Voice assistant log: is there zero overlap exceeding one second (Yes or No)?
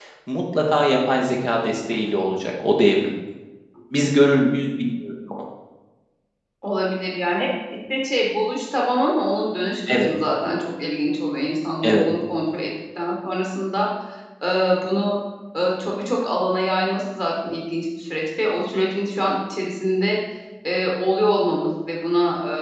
Yes